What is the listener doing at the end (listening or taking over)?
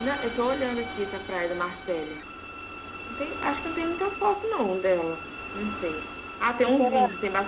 listening